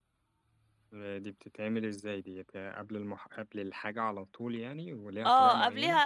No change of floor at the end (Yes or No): No